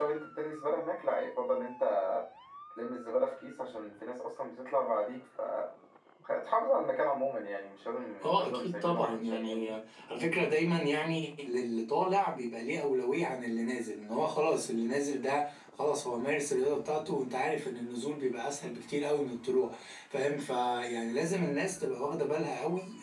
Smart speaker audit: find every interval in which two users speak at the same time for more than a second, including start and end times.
8.2-9.7

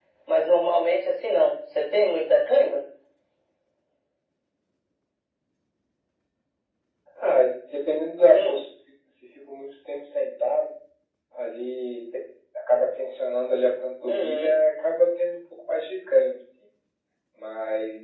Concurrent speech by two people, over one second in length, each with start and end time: none

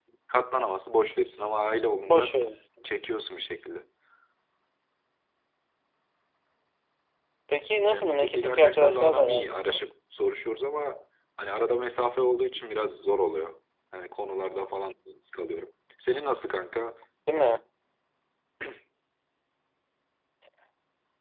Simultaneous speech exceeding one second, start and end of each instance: 7.9-9.8

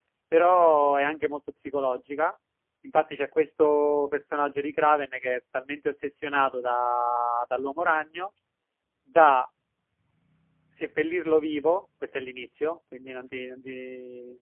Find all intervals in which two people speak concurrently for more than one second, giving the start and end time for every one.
none

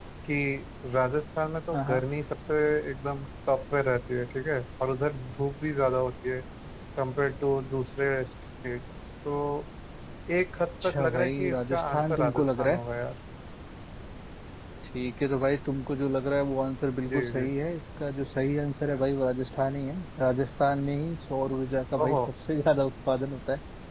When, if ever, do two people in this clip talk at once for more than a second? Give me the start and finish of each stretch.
10.6-12.8

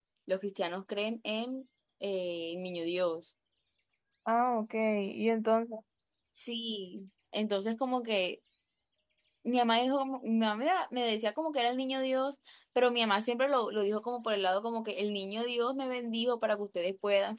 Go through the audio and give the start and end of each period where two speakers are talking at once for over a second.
none

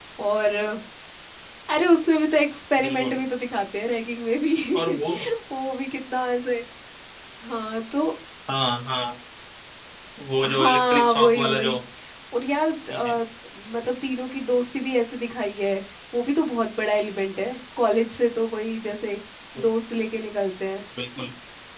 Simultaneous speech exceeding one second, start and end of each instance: 10.4-11.8

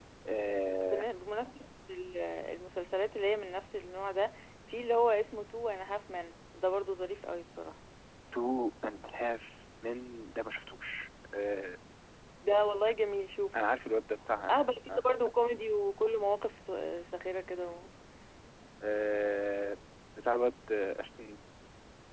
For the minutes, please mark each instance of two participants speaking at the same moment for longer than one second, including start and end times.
none

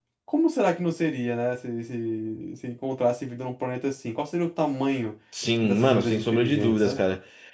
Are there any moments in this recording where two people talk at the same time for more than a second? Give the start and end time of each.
5.6-7.0

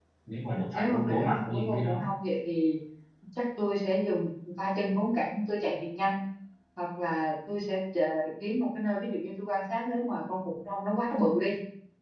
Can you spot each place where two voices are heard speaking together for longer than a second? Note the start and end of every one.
0.7-2.0

